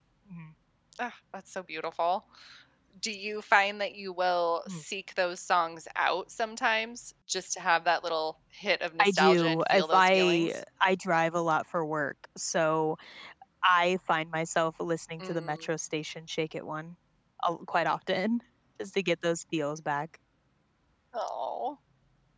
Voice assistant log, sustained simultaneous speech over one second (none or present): present